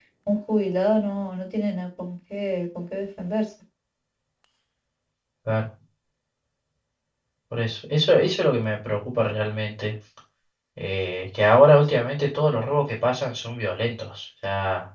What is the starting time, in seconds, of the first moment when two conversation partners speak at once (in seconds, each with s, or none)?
none